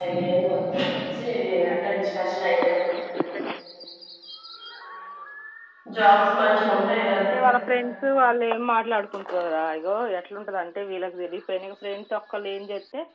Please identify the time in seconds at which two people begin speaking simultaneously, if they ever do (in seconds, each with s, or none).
none